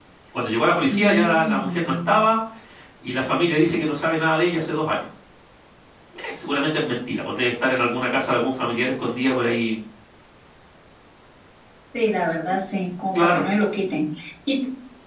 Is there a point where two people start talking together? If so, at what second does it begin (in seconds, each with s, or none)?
0.9 s